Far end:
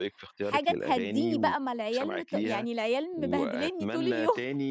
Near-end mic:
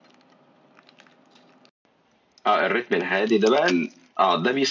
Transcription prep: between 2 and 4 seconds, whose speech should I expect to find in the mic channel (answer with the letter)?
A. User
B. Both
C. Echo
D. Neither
A